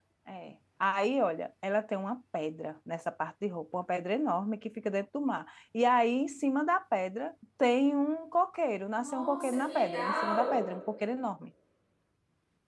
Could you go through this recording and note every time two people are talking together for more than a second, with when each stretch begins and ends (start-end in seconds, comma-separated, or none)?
9.0-10.6